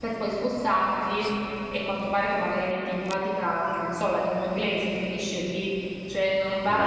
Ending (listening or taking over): listening